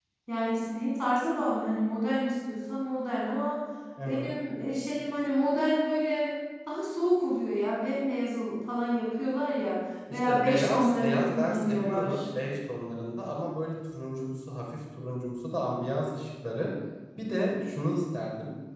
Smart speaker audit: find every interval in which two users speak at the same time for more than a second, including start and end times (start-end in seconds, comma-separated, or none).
10.1-12.3